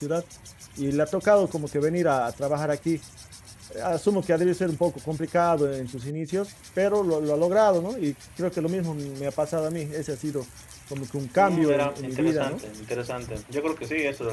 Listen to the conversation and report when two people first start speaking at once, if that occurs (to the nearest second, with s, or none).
11 s